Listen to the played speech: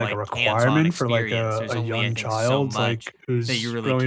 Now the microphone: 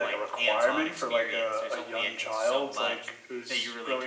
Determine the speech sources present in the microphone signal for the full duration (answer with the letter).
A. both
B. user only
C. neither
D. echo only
D